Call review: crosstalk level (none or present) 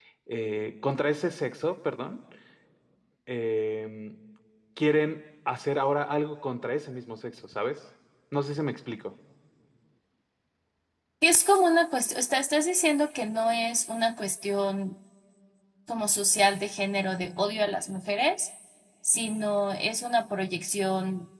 none